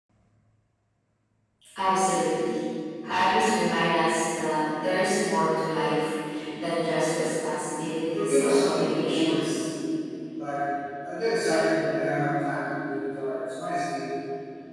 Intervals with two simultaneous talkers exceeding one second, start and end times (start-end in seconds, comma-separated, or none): 8.1-9.6